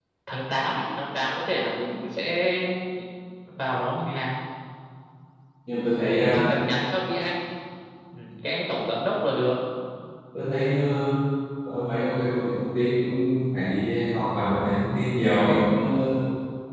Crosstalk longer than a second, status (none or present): none